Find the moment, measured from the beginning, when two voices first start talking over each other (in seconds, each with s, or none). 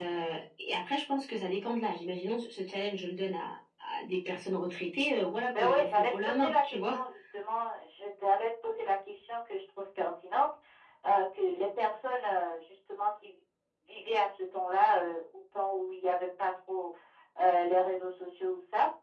5.5 s